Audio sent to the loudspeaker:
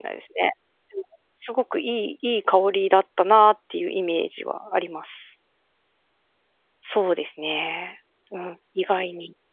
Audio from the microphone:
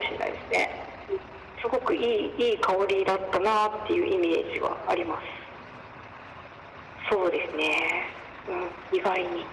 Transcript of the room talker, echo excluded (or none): none